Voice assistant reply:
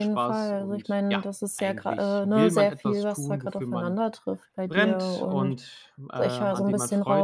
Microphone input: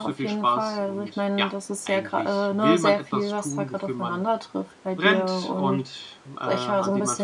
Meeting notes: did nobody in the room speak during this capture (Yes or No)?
Yes